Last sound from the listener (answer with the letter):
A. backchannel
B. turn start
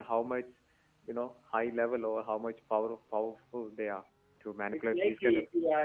B